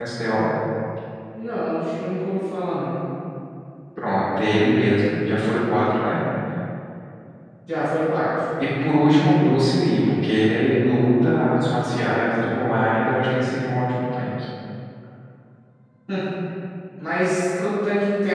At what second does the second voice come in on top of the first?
none

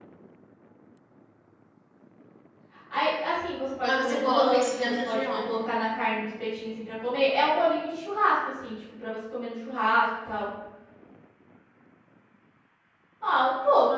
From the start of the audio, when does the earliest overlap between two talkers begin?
3.8 s

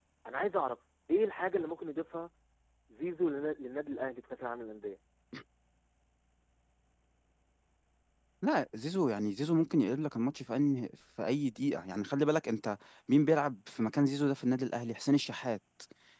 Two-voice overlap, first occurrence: none

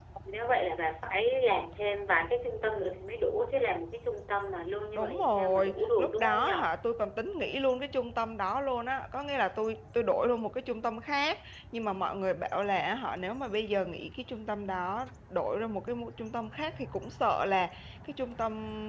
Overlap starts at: 5.0 s

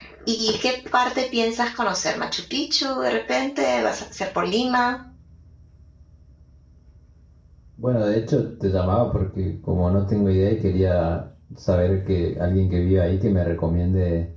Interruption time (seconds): none

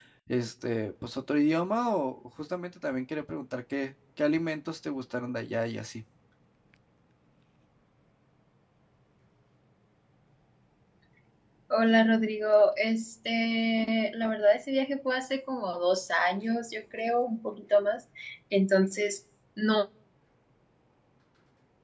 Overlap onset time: none

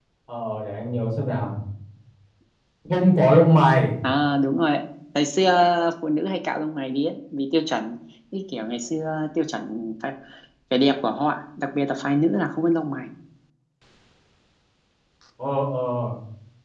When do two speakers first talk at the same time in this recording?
none

